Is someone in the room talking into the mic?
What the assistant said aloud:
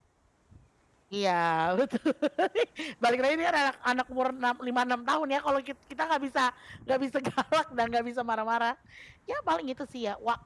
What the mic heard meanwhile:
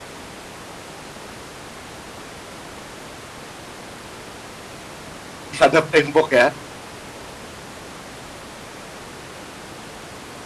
Yes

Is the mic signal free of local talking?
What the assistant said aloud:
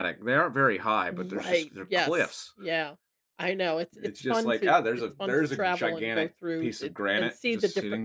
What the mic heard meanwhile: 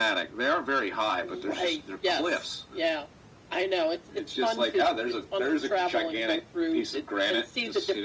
Yes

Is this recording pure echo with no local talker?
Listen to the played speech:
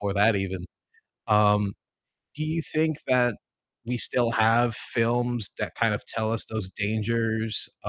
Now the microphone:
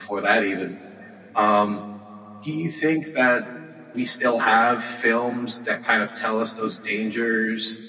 Yes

